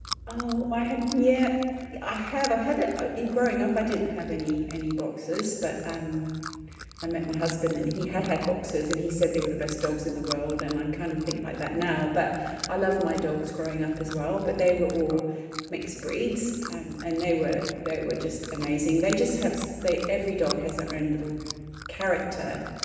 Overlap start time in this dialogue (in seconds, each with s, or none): none